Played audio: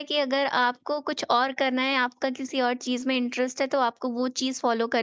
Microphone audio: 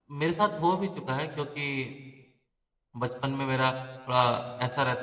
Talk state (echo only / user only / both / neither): user only